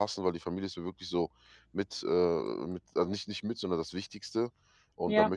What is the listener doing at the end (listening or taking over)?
listening